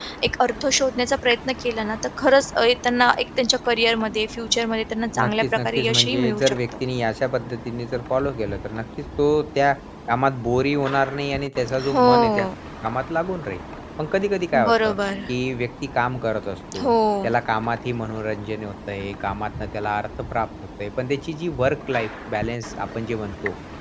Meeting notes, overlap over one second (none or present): present